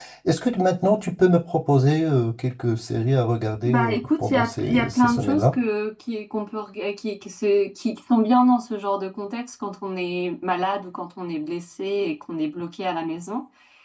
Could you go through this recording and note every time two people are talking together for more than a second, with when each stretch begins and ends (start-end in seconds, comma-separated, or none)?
3.7-5.6